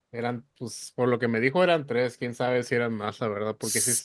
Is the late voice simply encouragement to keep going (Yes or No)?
Yes